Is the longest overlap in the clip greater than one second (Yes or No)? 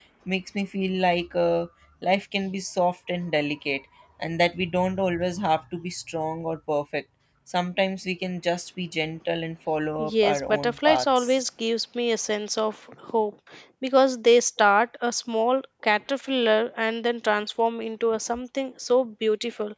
Yes